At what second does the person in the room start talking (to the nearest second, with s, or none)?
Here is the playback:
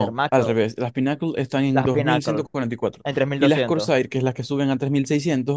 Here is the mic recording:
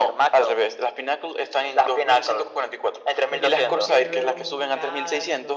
3 s